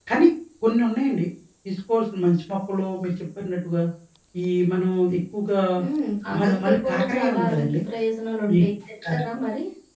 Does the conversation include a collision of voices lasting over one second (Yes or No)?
Yes